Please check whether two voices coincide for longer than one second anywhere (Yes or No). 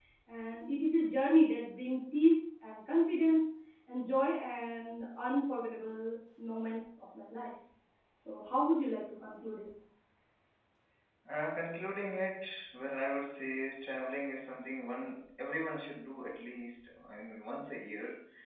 No